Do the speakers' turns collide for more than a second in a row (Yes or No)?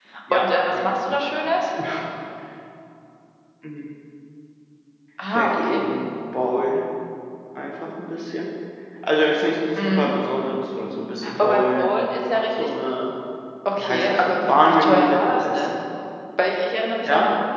Yes